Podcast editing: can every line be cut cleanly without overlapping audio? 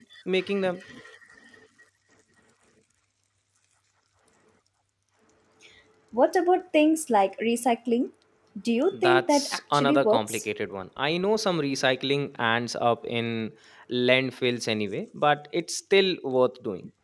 No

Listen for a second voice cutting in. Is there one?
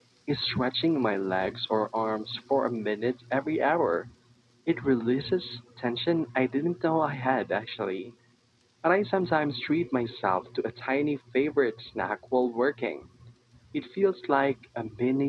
No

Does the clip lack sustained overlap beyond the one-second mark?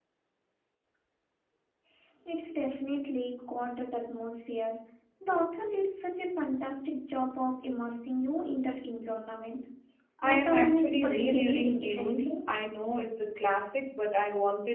No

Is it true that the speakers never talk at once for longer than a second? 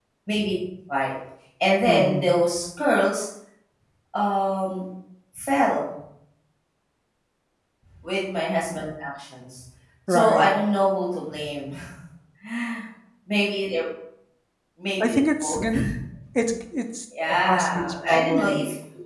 No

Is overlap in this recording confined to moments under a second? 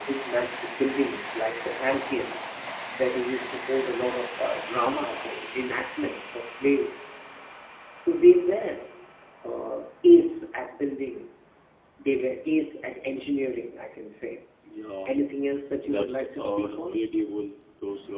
No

